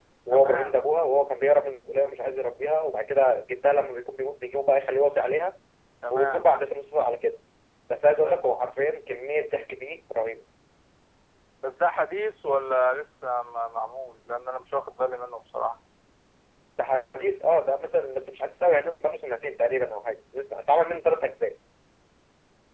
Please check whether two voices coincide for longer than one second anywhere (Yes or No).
No